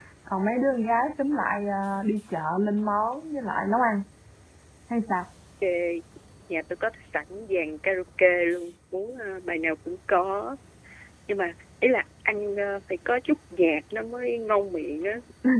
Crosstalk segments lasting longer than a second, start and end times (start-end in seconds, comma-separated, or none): none